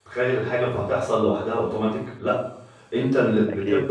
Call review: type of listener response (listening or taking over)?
listening